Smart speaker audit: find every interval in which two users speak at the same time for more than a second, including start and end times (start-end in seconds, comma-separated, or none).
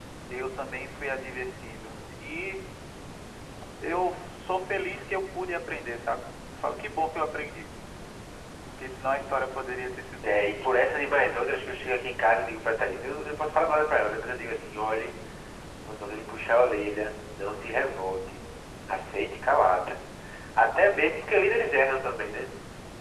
none